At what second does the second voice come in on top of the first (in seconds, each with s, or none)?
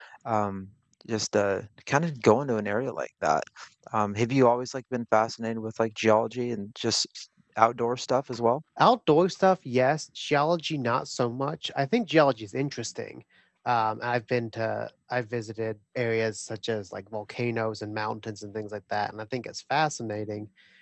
none